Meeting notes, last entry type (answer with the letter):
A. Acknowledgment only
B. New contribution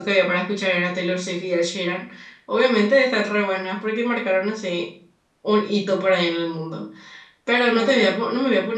A